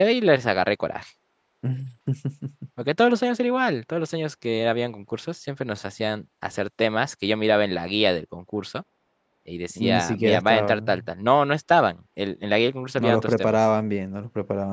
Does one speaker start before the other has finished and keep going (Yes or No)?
Yes